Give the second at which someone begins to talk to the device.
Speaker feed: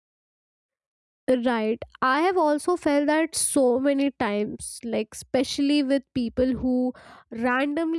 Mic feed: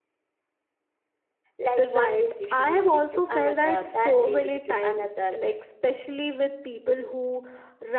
1.6 s

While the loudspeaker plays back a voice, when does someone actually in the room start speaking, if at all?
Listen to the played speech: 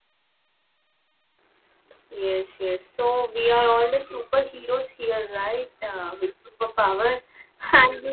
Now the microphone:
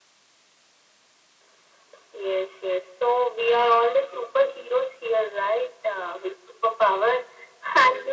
none

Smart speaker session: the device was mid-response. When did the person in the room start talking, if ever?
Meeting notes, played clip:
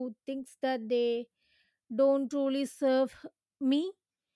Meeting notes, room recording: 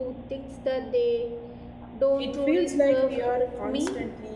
2.2 s

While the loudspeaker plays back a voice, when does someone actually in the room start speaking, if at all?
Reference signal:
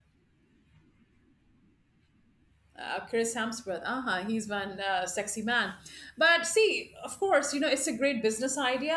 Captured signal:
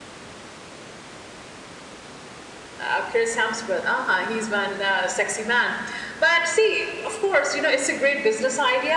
none

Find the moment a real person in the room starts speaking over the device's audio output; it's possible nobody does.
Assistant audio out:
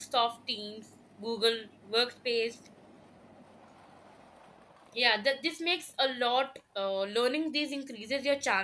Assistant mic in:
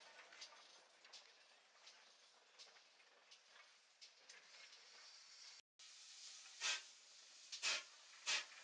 none

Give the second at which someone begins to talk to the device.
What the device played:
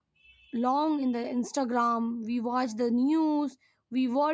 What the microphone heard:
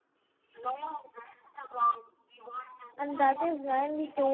3.0 s

